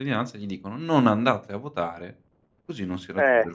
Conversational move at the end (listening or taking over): taking over